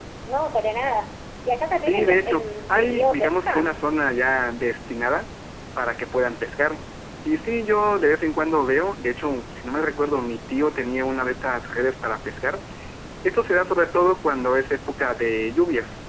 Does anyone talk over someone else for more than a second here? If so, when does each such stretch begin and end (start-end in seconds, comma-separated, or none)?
1.8-3.8